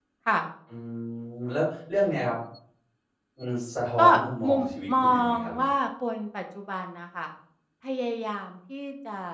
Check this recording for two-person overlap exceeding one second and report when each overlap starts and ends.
4.5-5.7

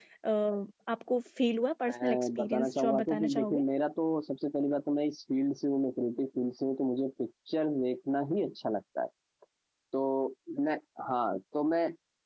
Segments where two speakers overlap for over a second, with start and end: 1.9-3.6

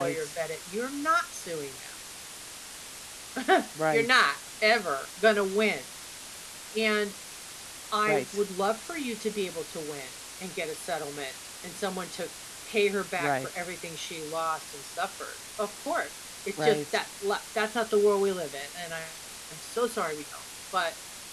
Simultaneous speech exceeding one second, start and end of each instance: none

